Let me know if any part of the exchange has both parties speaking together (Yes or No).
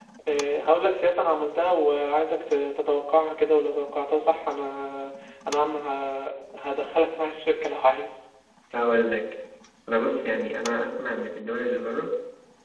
No